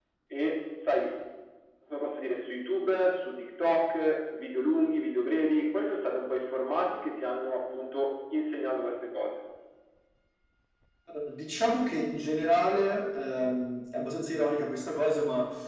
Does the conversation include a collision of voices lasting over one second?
No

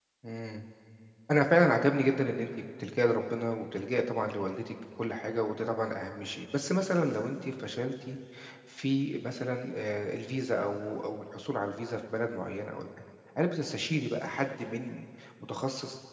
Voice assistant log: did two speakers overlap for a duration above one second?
No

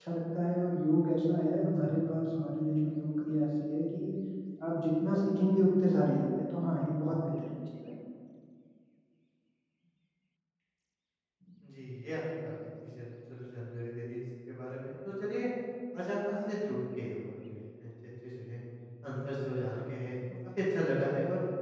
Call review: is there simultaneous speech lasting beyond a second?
No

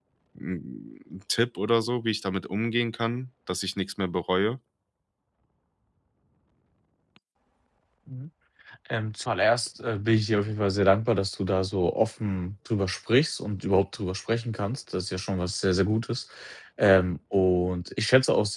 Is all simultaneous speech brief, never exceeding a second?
Yes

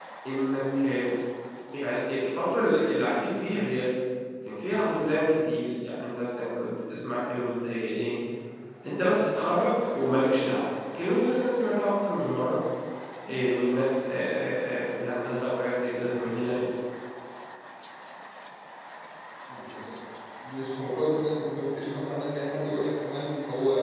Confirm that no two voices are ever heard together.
Yes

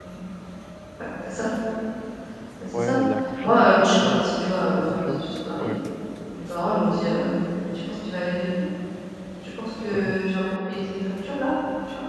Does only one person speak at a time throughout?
No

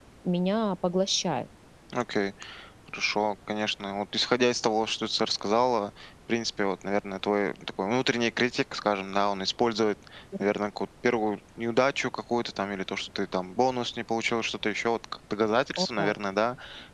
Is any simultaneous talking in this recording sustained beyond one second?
No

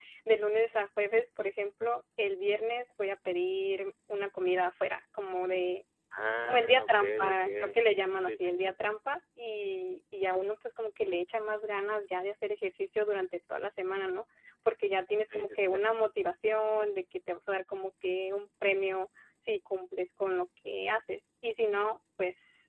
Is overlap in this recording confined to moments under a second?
No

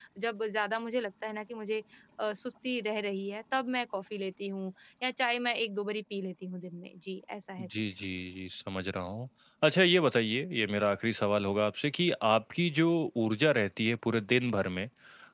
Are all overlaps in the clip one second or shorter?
Yes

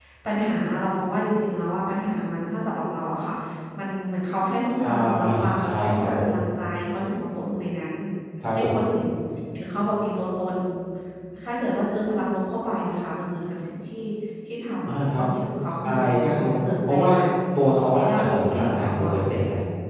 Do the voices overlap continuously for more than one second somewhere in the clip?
Yes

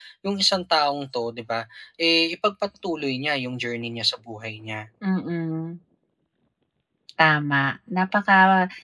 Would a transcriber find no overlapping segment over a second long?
Yes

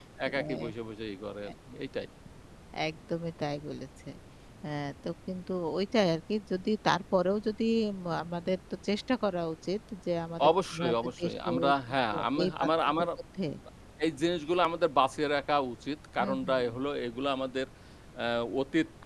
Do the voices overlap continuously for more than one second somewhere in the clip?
Yes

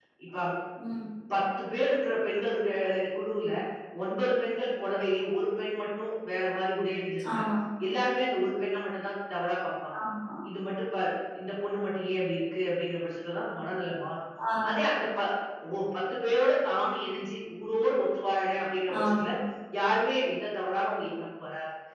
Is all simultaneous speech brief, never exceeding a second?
Yes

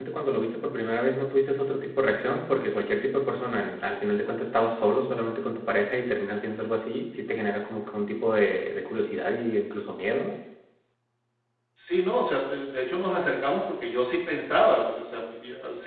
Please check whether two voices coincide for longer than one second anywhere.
No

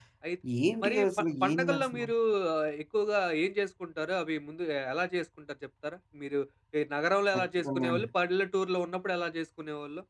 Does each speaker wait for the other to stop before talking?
No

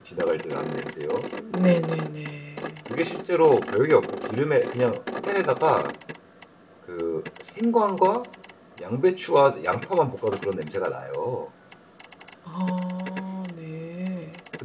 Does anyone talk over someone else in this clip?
No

